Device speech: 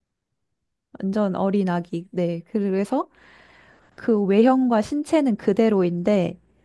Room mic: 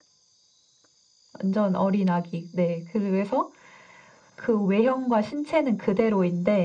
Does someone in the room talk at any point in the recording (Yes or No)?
No